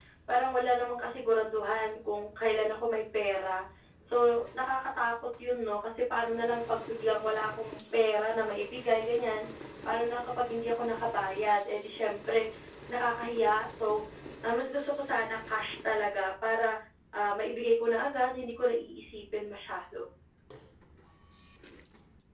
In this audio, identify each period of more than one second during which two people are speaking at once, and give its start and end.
none

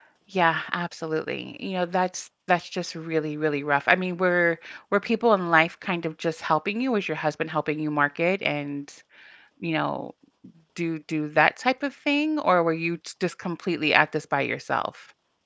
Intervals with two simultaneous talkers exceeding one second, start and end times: none

